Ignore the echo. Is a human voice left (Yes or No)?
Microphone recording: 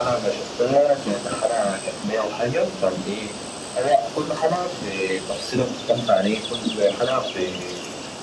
No